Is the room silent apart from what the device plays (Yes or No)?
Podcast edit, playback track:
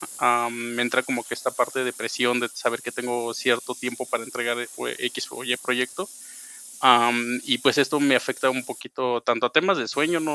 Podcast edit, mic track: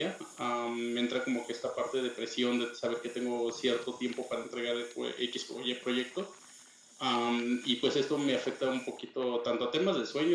Yes